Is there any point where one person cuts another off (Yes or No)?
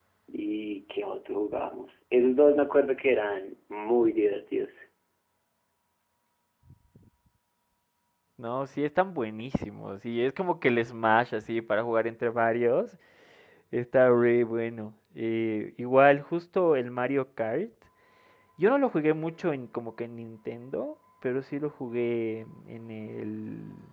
No